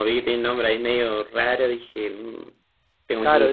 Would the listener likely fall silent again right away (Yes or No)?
No